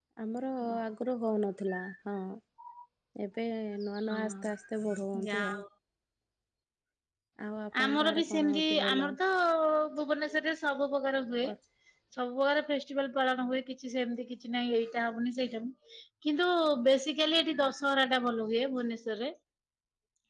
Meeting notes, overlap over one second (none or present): present